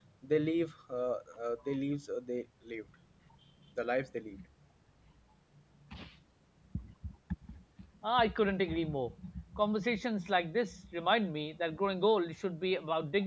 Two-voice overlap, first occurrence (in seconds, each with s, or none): none